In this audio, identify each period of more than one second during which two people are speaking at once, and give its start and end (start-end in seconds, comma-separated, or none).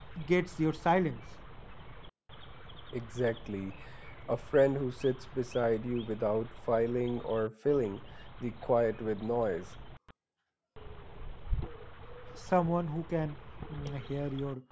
none